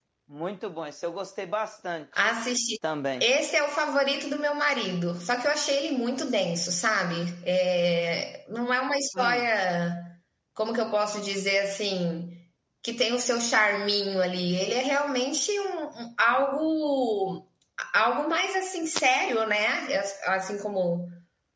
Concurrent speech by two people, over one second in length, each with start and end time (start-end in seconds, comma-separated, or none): none